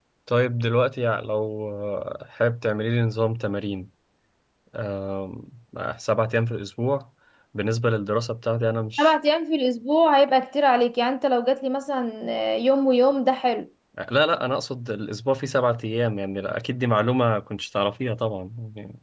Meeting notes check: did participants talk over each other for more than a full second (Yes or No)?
No